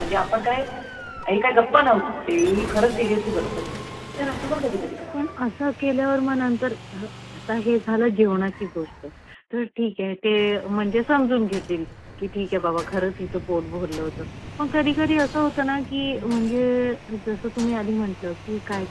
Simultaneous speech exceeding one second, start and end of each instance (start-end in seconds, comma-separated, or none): none